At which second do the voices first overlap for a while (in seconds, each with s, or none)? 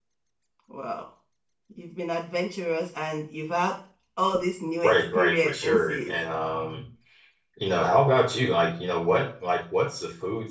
4.8 s